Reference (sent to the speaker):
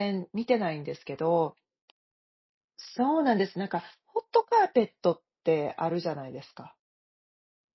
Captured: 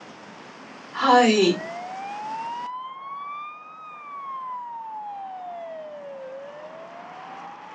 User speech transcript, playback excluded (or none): はい。